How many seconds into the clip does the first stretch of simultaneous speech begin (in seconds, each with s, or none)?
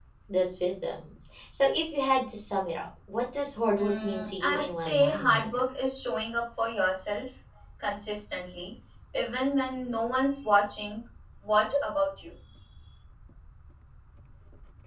3.8 s